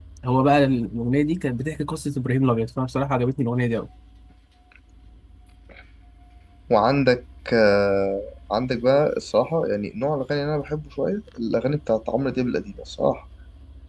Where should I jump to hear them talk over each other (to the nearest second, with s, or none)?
none